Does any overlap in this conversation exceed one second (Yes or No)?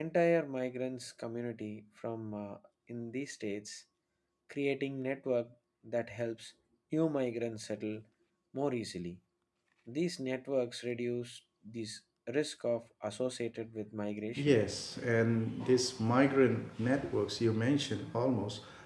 No